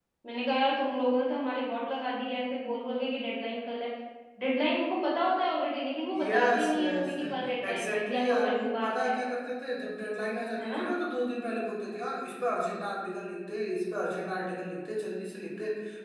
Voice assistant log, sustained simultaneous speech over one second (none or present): present